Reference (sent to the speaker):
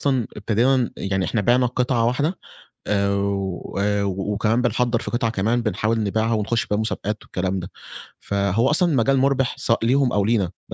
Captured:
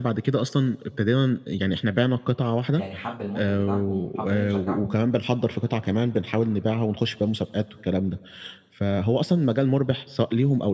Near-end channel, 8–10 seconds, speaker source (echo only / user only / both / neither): echo only